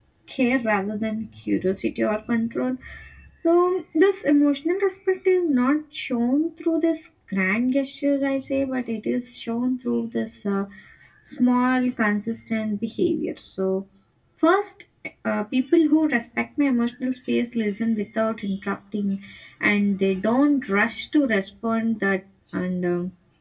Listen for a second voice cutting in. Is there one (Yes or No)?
No